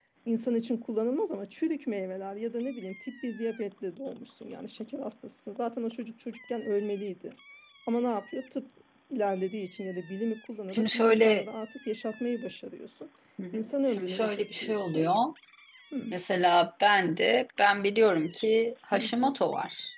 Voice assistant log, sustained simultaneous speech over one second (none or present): present